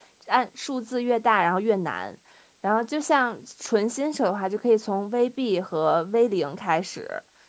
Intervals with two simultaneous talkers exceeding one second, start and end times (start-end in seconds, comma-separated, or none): none